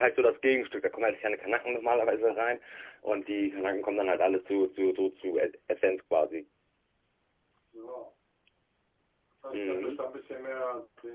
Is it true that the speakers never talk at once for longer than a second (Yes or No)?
Yes